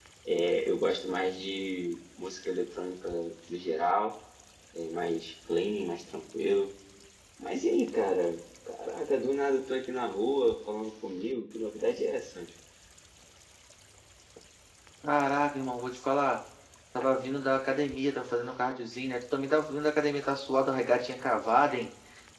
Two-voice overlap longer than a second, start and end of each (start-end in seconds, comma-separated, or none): none